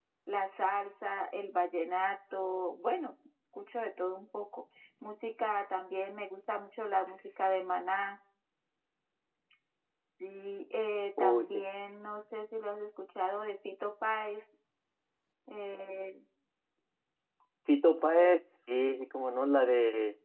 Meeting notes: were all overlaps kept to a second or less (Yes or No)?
Yes